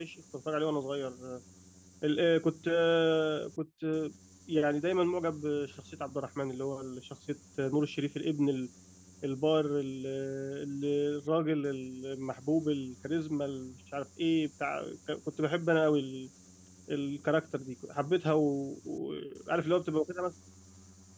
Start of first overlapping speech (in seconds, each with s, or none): none